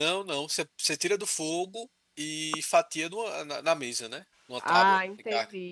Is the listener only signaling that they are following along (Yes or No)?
No